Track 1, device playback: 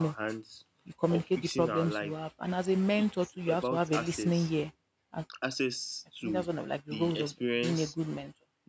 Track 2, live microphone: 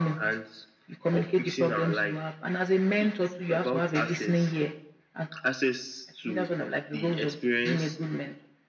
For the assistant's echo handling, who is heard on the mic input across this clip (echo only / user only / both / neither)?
echo only